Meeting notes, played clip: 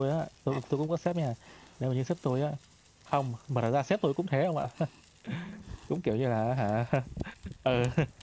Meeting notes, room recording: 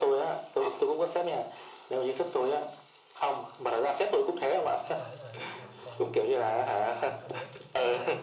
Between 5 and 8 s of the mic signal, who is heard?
both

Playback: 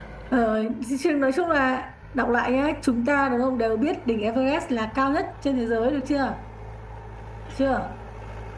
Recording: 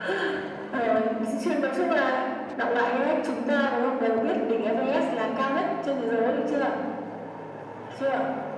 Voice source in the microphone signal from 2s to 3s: echo only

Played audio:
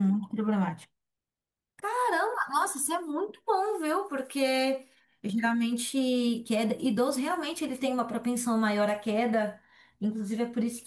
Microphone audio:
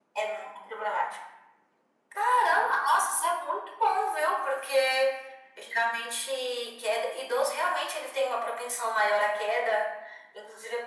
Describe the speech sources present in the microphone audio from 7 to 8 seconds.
echo only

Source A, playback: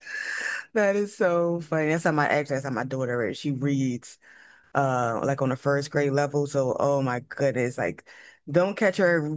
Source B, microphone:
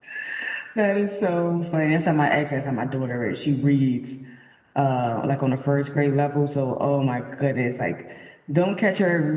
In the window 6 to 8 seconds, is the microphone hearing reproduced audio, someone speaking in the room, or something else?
echo only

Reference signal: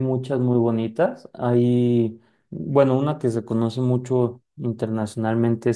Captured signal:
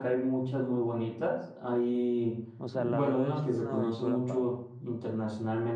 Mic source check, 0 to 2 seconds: echo only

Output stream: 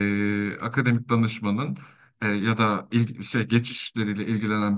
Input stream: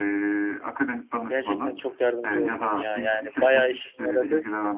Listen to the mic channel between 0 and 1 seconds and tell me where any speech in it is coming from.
echo only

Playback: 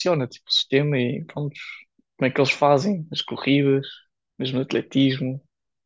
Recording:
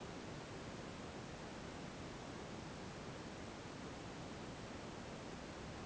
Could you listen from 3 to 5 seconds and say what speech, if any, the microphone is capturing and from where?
neither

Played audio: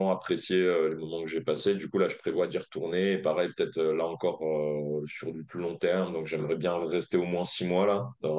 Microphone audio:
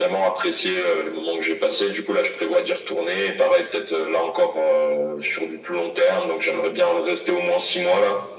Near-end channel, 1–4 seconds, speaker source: echo only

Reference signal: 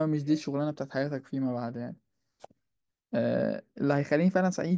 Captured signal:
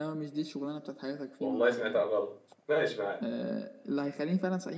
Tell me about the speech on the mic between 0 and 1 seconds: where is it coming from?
echo only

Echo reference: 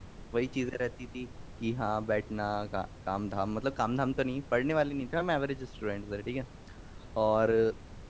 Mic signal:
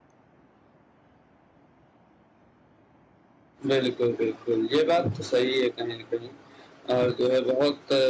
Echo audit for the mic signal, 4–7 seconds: user only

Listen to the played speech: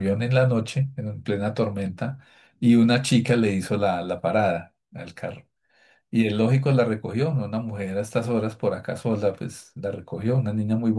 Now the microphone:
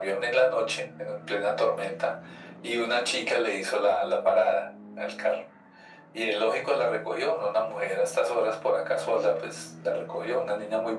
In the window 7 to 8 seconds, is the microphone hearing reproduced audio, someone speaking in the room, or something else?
echo only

